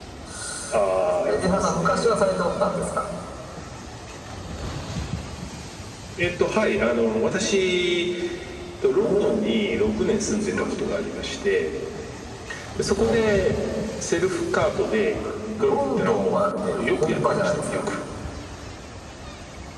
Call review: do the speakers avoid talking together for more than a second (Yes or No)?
No